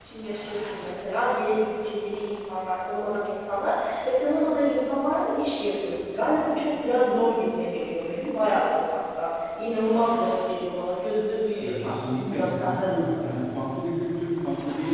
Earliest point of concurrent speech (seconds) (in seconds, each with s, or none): 11.6 s